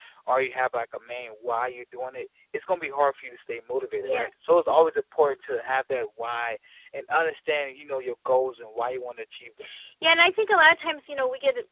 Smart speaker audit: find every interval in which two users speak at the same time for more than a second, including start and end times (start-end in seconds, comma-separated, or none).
none